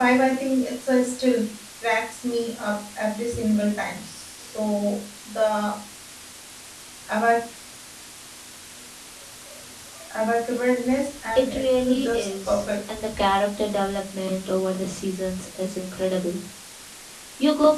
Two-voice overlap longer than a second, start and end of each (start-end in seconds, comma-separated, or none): 11.4-12.7